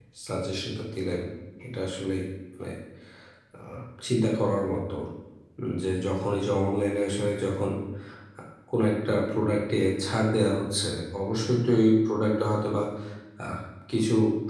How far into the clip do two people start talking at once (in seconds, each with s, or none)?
none